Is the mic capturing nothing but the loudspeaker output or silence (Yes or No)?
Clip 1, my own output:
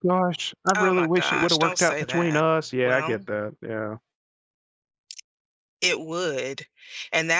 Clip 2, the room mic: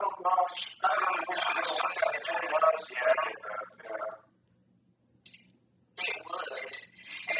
Yes